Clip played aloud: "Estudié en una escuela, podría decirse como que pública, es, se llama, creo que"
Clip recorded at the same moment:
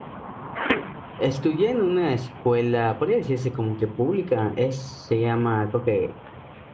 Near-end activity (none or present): none